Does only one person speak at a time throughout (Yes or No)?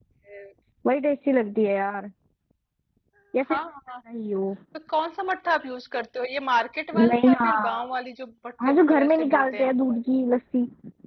No